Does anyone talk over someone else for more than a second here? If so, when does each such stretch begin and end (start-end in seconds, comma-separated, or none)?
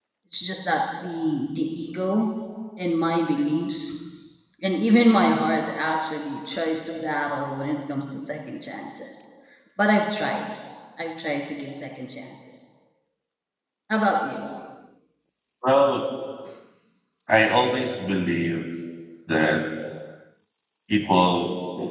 none